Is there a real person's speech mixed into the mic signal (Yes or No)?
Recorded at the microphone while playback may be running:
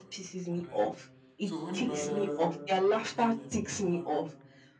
Yes